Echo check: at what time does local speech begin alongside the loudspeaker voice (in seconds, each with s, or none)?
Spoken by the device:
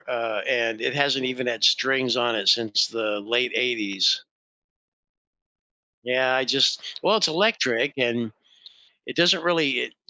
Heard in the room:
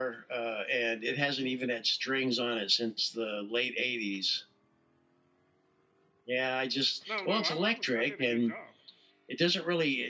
7.0 s